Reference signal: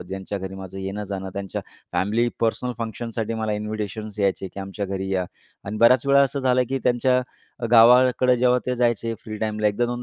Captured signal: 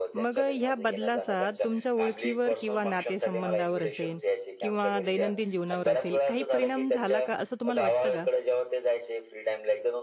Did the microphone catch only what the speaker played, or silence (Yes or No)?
No